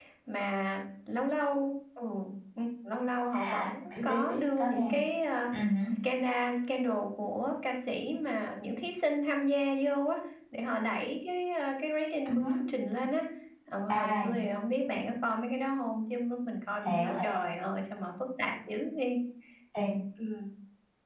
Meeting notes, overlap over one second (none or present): present